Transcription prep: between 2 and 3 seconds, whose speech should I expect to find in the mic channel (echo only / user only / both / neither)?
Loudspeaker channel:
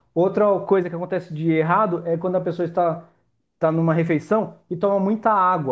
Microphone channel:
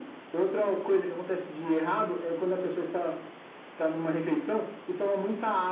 echo only